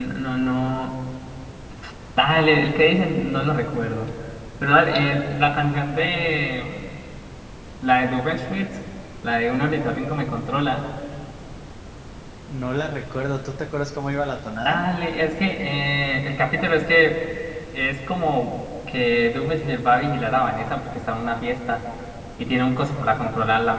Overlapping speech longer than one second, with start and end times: none

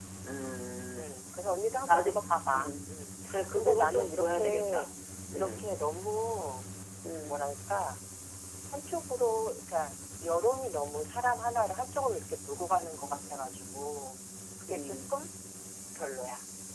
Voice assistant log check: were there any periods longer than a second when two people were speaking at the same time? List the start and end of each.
3.5-4.9

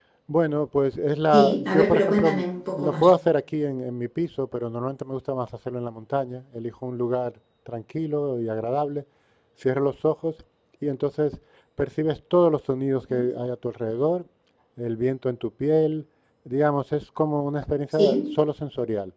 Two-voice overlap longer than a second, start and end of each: 1.3-3.1

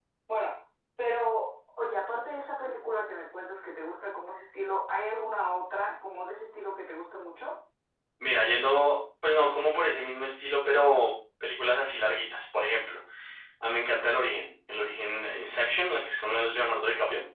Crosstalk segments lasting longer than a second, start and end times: none

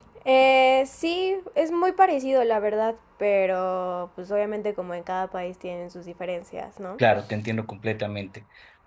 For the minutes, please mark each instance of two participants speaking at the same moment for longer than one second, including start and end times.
none

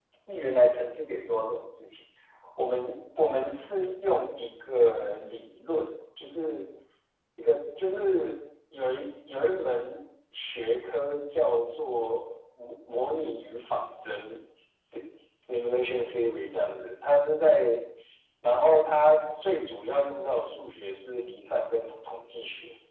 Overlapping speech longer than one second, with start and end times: none

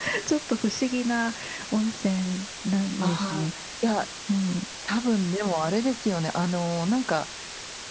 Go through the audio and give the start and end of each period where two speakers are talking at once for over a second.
none

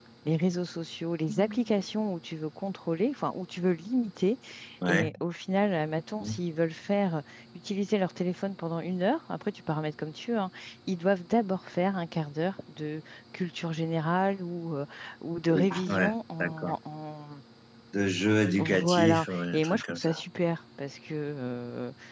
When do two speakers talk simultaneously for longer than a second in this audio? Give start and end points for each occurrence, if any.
15.5-16.7, 18.6-20.2

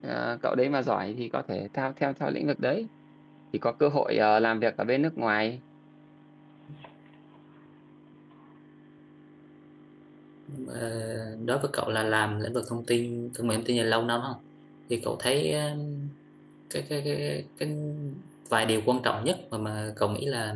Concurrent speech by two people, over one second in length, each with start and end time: none

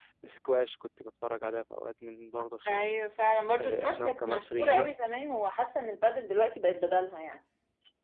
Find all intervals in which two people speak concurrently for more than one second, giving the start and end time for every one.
3.6-4.9

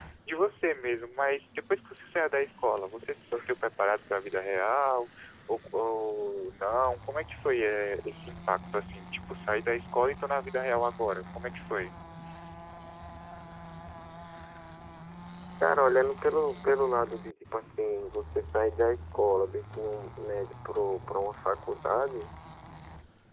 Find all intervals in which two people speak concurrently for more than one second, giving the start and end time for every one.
none

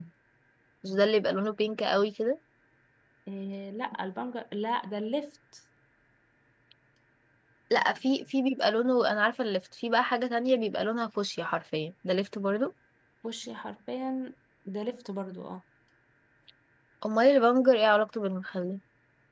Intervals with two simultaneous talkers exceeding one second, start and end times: none

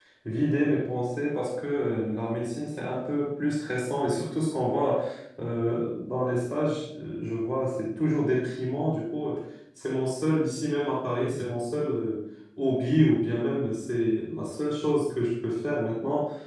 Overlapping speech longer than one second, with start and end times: none

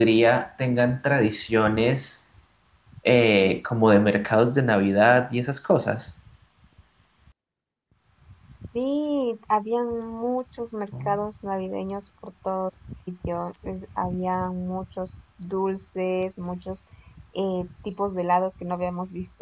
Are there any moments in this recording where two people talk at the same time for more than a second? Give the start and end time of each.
none

